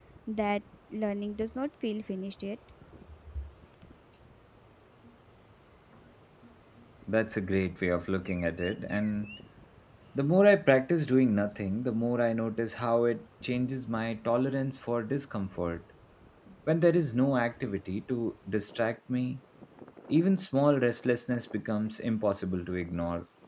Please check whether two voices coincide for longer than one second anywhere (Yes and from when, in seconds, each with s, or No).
No